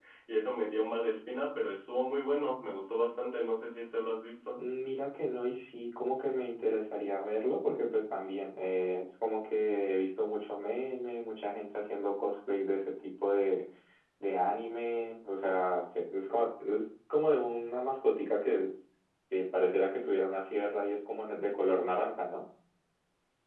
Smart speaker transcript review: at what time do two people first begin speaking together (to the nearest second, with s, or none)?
none